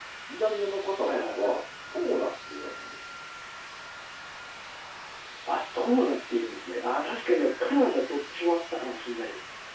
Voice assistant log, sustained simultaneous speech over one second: none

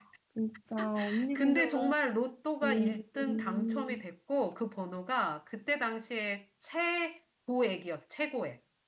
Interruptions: present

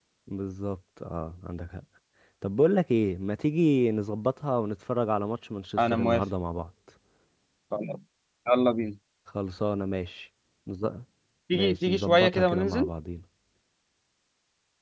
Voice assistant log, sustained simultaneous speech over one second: present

